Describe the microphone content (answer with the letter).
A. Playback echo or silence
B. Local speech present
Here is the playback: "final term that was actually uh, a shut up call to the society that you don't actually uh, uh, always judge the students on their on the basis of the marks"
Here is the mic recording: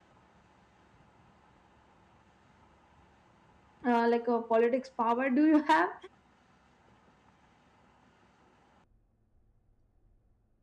B